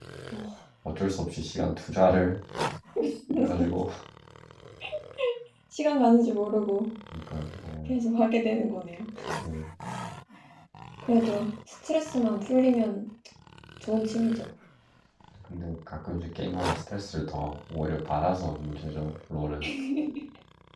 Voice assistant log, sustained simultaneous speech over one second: none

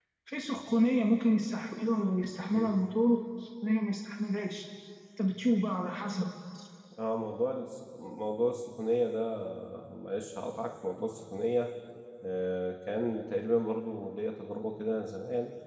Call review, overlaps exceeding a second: none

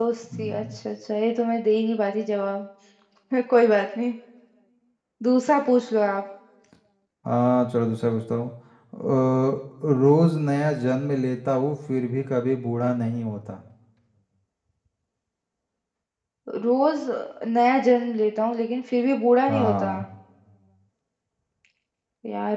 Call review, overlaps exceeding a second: none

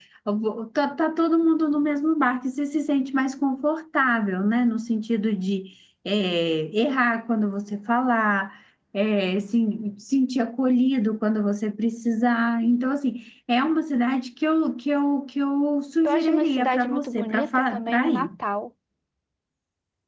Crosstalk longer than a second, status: present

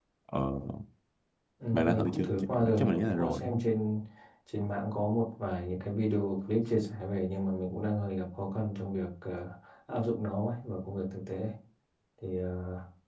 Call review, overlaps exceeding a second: present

